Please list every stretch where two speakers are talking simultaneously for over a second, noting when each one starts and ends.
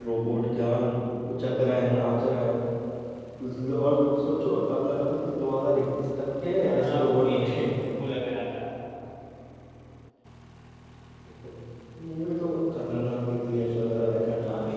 6.6-7.9

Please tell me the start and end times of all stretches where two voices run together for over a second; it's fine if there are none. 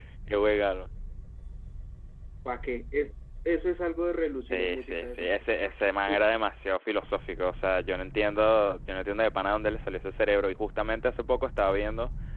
4.5-6.3

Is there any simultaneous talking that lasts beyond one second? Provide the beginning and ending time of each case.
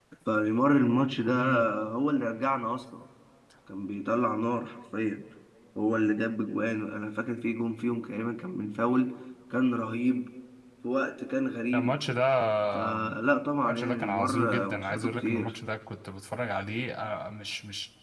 13.6-15.5

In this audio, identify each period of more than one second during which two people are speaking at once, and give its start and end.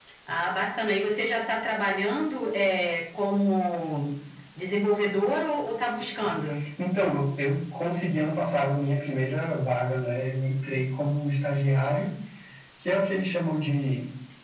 none

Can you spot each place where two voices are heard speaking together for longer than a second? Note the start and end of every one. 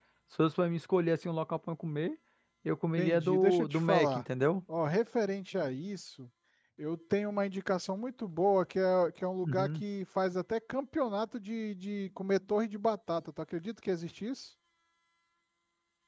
3.0-4.2

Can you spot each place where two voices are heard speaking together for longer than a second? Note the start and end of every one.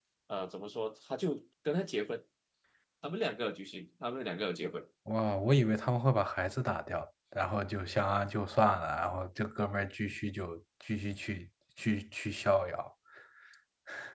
none

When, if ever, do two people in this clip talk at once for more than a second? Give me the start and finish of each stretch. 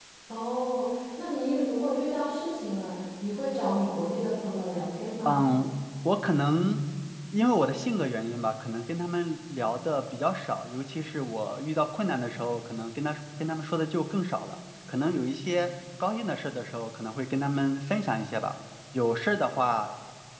none

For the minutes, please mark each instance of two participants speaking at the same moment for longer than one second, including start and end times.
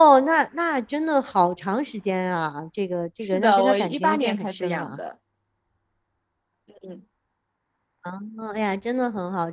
3.2-5.0

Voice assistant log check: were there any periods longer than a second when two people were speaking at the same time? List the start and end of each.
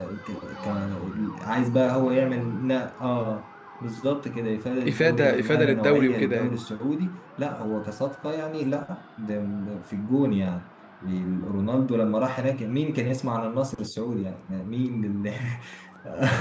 4.8-6.6

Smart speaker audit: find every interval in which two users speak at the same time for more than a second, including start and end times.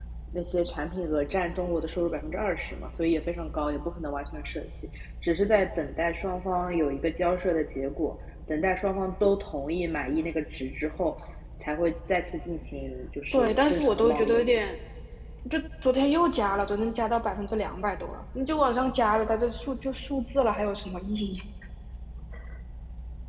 13.3-14.6

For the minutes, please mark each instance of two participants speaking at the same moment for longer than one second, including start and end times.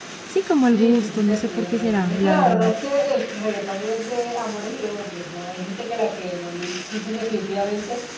0.7-2.7

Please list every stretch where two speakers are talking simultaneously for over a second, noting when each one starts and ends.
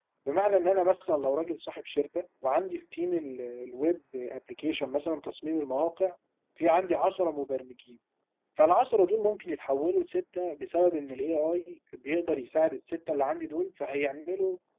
none

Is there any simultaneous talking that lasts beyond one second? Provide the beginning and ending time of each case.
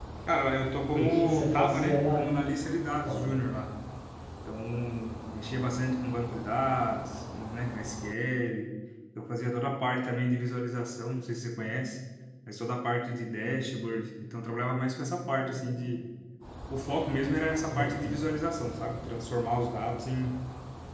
1.0-2.2

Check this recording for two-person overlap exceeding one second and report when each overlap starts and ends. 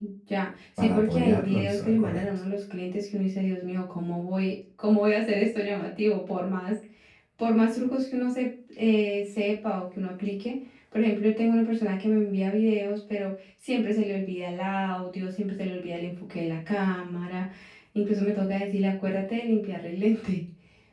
0.8-2.2

